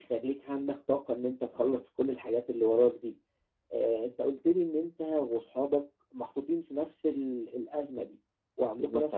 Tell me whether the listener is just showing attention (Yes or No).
Yes